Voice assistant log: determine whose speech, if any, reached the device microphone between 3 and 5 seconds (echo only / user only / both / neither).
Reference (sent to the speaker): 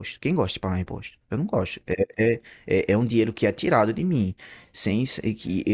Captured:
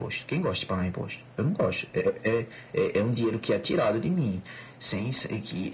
echo only